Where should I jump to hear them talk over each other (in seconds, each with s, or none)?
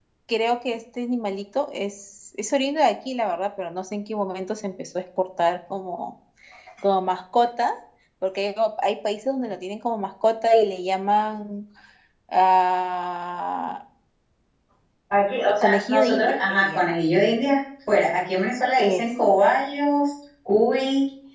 15.6 s